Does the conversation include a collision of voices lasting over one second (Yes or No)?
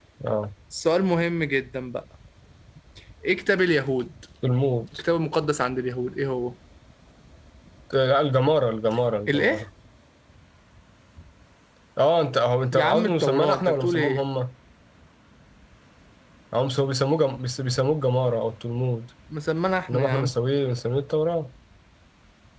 Yes